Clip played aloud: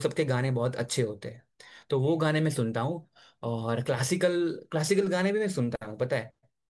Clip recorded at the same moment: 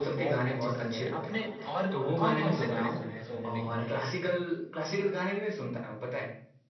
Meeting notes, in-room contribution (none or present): present